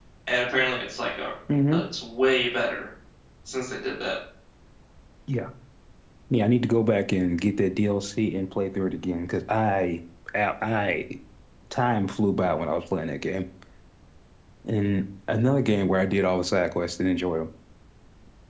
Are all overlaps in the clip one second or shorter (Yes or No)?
Yes